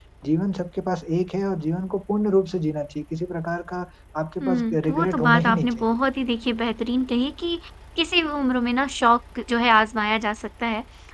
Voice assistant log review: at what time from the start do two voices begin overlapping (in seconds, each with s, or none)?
4.4 s